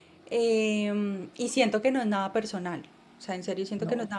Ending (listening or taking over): listening